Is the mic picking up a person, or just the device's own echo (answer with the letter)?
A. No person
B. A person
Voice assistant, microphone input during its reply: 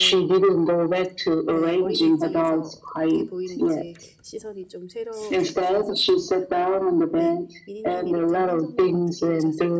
B